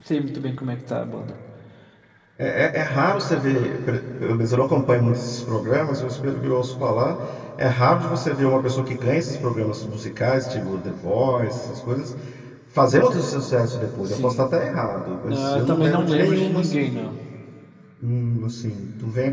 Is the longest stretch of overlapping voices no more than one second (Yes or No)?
No